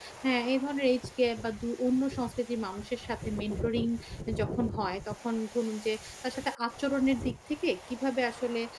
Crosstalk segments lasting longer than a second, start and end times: none

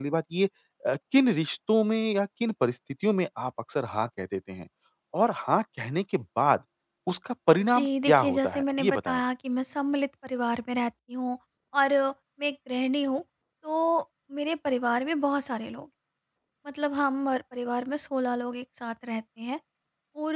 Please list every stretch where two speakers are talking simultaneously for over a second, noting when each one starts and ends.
7.7-9.2

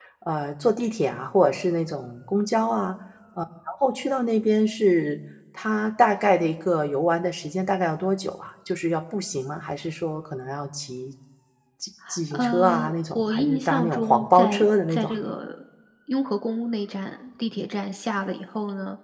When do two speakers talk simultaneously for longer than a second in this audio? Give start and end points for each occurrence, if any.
12.3-15.1

